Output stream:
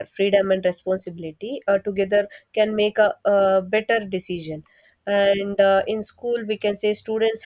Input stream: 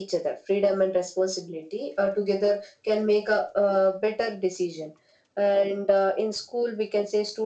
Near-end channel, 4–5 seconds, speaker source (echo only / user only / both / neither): echo only